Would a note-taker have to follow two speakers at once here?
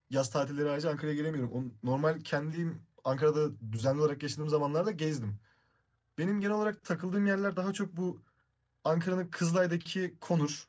No

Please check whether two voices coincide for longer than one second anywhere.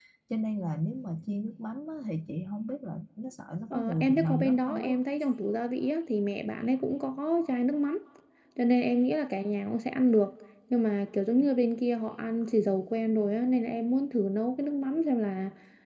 Yes, from 3.7 s

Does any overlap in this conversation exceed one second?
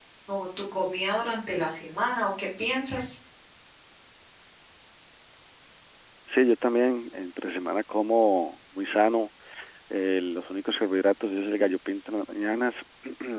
No

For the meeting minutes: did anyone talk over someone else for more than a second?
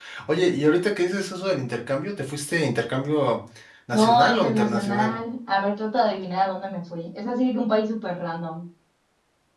Yes, from 4.0 s

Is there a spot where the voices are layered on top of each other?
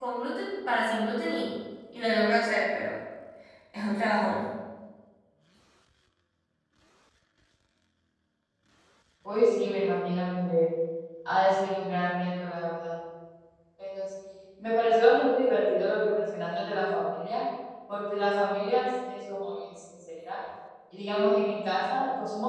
No

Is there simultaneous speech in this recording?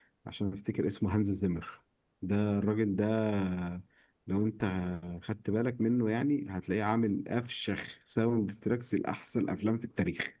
No

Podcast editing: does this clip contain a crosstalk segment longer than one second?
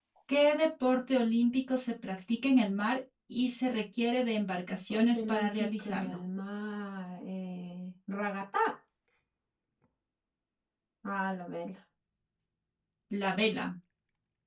Yes, from 4.7 s

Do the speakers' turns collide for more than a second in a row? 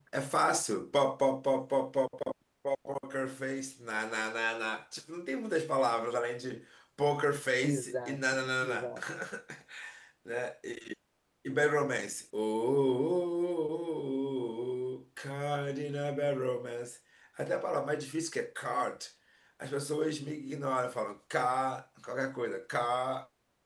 Yes, from 7.6 s

